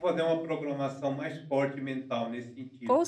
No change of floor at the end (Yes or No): No